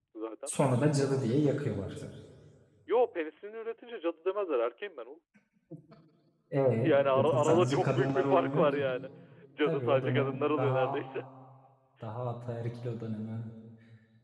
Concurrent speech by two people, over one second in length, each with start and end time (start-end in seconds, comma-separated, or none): 6.8-8.7, 9.6-11.0